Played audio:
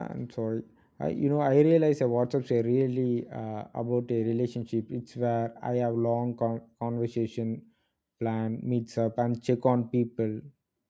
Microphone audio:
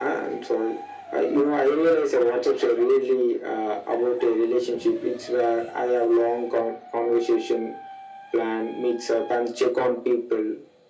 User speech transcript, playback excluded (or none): none